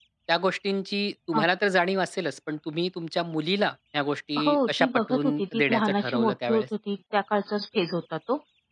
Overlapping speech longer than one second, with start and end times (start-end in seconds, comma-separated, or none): 4.4-6.6